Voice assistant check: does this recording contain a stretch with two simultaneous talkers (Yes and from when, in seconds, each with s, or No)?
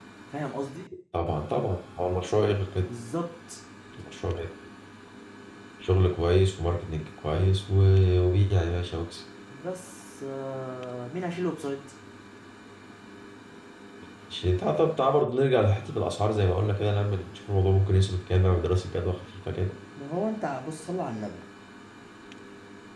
No